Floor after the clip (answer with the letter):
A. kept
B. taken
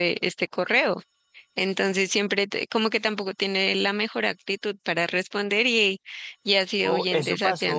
B